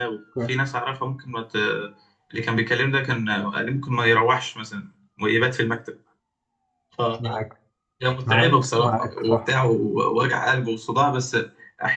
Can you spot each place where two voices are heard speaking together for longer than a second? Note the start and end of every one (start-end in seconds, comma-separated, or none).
8.2-9.5